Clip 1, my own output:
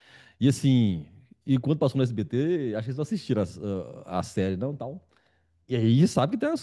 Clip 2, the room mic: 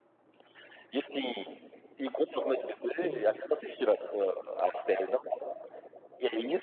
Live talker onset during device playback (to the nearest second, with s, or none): 3 s